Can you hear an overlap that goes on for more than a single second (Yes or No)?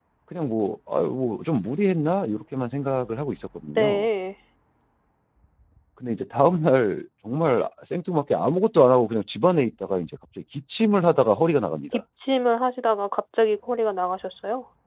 No